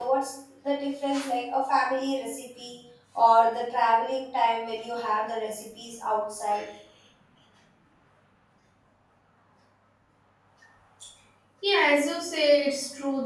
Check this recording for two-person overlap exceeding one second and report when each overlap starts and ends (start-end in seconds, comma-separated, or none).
none